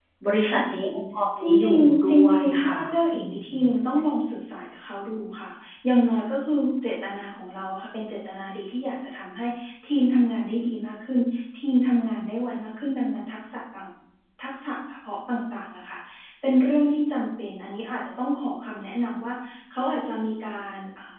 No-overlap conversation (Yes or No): No